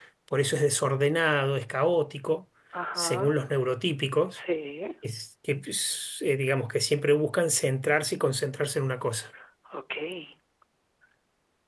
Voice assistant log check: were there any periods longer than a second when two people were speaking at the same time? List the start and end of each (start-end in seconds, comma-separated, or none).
none